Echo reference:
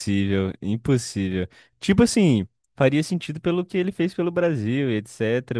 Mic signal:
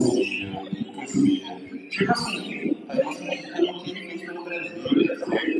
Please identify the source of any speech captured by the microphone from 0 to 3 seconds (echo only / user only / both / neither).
echo only